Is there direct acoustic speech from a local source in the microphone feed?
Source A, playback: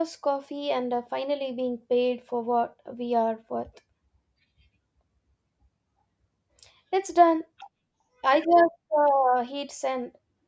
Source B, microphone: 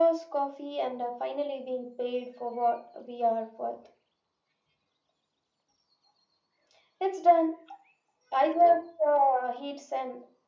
No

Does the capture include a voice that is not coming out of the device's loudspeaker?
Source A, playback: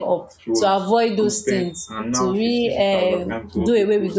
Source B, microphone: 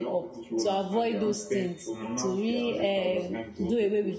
Yes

